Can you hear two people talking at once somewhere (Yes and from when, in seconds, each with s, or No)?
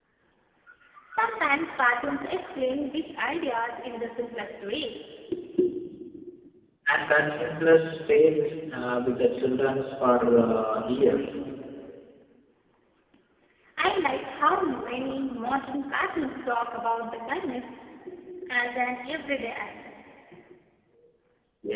No